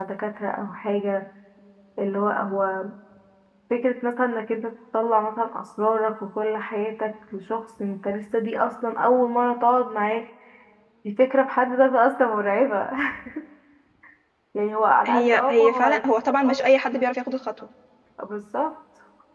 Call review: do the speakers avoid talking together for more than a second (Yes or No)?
No